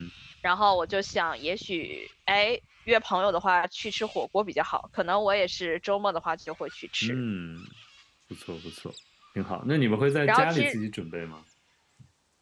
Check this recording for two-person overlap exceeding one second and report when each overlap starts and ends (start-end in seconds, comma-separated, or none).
none